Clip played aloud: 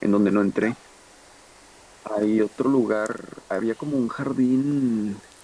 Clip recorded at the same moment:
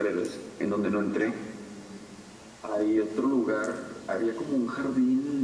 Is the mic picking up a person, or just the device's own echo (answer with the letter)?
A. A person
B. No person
B